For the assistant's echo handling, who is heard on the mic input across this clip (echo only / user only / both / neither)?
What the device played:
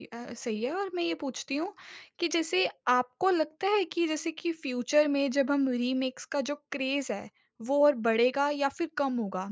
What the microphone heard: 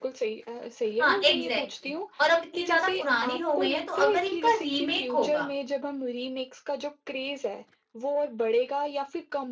both